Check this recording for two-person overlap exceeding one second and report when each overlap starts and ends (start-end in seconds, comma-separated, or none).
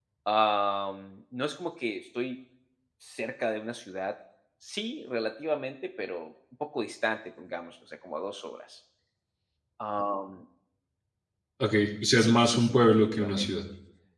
12.2-13.5